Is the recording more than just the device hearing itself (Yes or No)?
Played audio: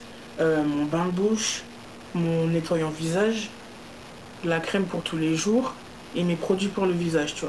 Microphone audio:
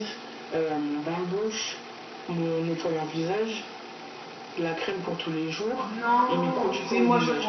Yes